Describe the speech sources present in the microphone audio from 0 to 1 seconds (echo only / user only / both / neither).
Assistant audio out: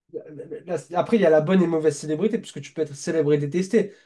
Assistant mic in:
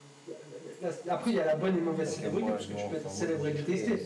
echo only